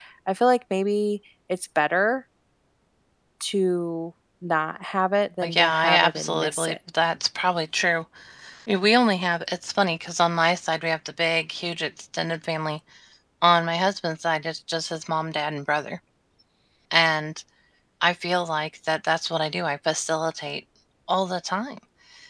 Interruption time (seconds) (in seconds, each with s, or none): 5.4 s